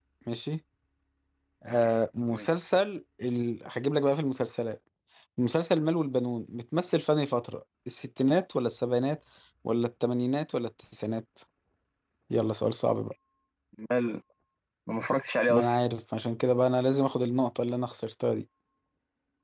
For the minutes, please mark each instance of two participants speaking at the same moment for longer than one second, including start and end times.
none

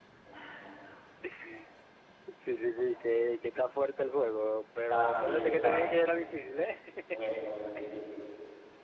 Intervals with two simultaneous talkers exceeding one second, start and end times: 4.9-6.1

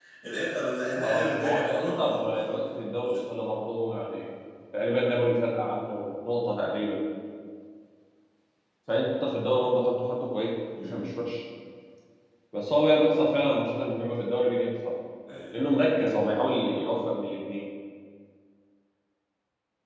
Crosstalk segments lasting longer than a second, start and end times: 1.0-2.2

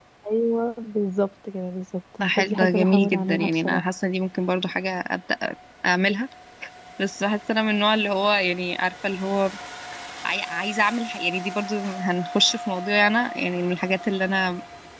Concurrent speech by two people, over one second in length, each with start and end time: 2.4-3.9

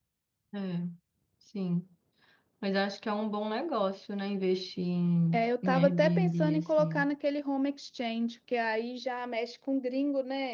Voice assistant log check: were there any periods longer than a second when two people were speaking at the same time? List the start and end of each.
5.3-7.1

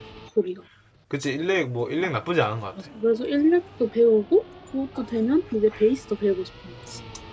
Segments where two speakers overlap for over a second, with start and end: none

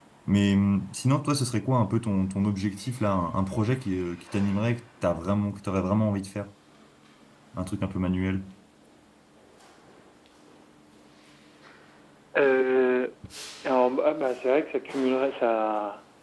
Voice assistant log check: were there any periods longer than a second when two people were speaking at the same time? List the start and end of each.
none

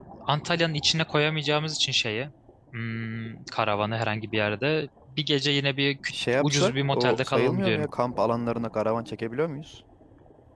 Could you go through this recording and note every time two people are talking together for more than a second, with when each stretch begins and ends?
6.1-7.9

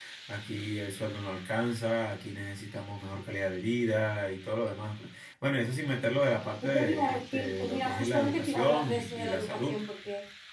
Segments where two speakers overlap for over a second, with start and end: 6.6-9.8

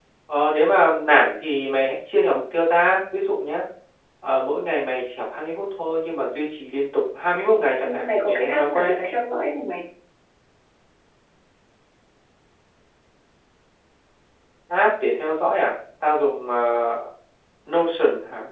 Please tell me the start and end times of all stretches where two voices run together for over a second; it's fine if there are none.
7.8-9.1

